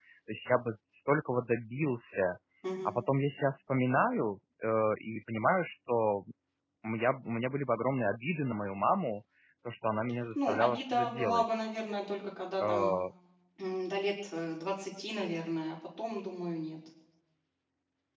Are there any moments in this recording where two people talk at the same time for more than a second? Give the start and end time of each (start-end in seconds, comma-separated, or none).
10.3-11.6